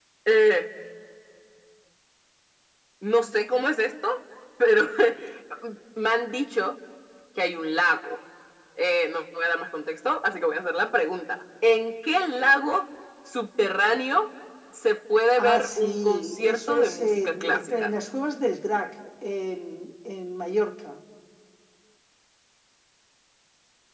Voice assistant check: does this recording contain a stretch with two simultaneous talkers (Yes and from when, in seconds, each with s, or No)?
Yes, from 15.4 s